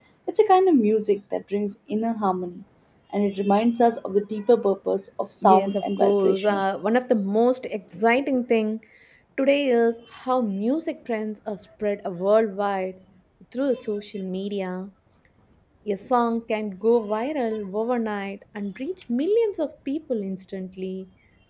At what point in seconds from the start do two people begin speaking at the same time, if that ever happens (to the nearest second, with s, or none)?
5 s